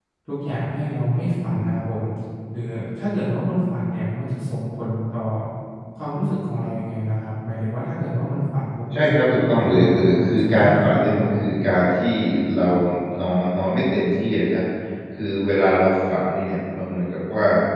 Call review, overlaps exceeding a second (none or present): present